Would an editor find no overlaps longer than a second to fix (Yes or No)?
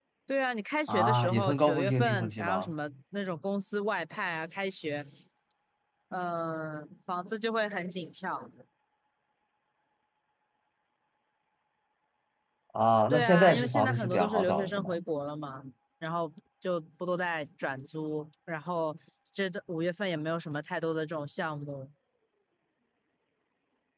No